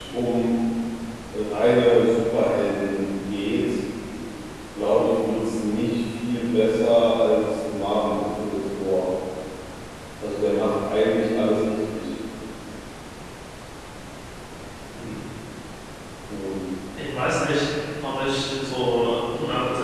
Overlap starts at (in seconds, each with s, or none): none